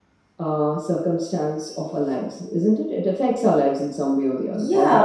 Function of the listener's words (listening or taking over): taking over